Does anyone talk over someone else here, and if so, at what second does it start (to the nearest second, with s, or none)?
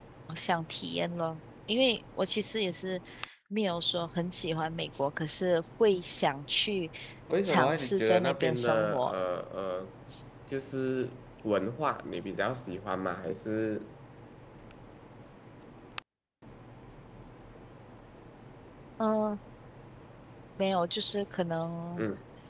7 s